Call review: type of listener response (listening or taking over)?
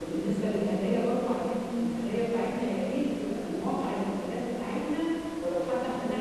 listening